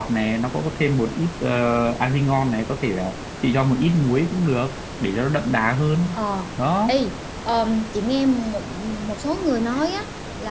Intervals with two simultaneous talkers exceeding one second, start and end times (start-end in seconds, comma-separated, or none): none